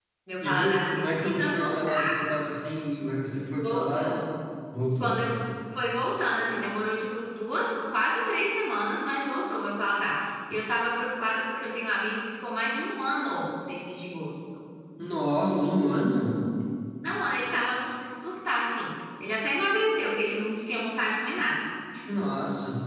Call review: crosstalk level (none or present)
present